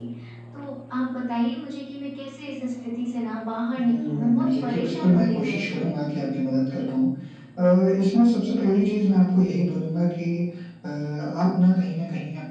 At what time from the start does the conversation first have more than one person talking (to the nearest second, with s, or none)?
4 s